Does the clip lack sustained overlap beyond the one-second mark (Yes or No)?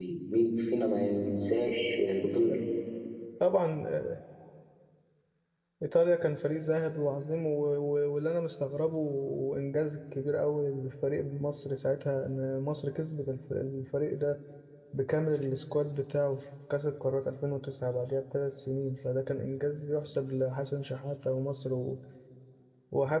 Yes